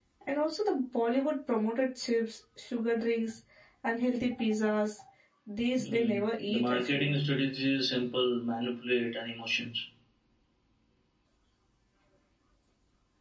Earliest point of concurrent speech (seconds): 5.8 s

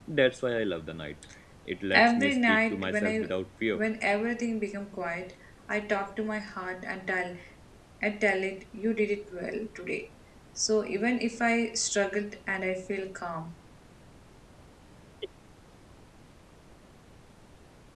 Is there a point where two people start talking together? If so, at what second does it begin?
1.9 s

